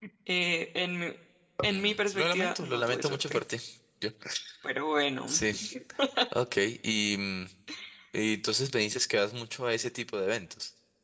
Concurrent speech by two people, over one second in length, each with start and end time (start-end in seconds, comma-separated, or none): 1.7-3.4